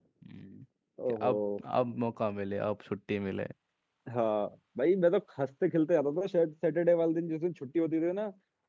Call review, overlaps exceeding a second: none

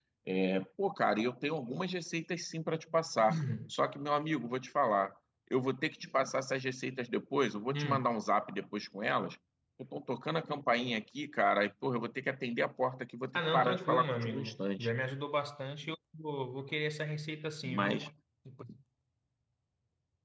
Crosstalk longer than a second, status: present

